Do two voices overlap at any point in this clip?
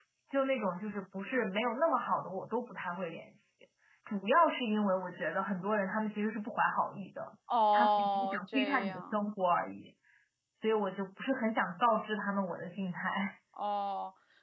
Yes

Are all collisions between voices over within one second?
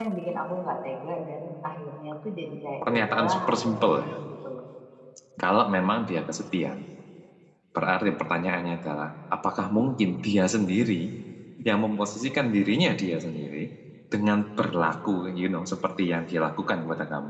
No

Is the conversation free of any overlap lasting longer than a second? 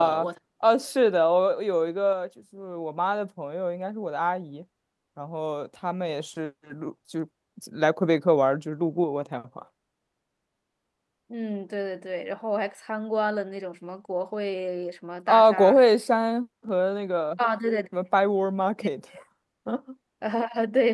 Yes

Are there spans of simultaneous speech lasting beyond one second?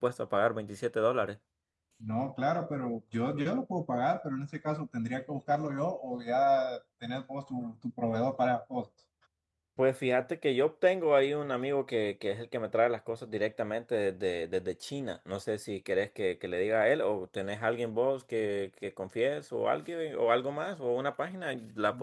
No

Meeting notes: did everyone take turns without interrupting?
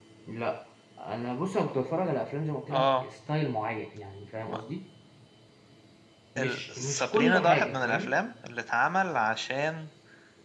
No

